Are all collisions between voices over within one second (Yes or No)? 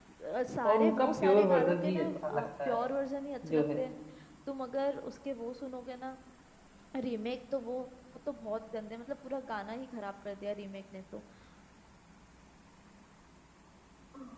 No